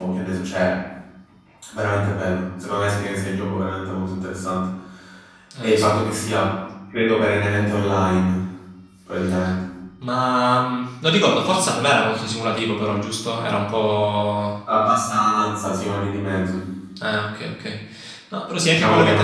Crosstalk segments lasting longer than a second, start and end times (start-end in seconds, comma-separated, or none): none